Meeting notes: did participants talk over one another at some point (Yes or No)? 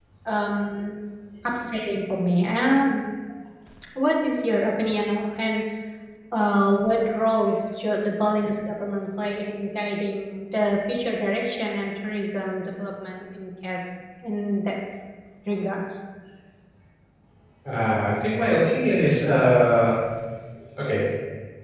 No